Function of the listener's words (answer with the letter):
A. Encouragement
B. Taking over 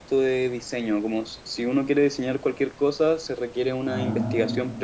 A